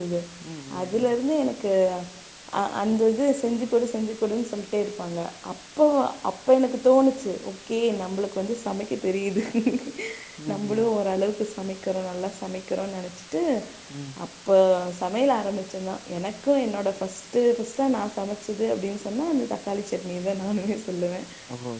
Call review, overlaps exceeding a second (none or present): none